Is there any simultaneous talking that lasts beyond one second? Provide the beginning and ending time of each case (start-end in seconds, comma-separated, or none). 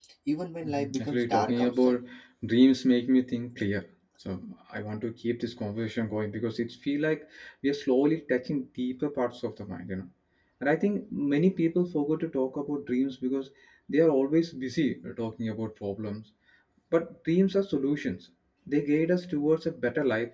0.6-2.0